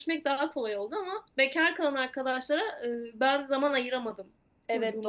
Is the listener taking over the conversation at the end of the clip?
Yes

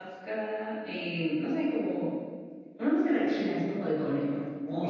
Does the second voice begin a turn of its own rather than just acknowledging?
Yes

